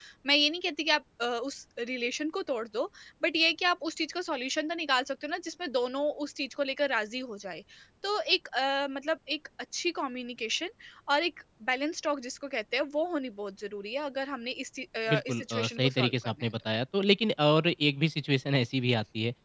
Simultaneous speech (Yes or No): Yes